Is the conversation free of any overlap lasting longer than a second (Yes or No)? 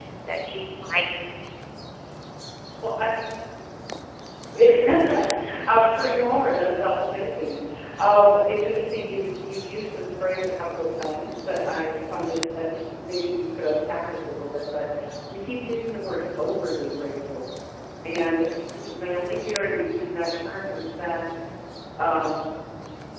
Yes